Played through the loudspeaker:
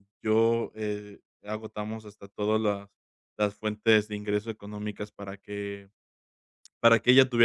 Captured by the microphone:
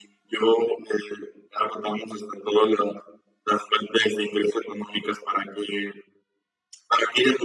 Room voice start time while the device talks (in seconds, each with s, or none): none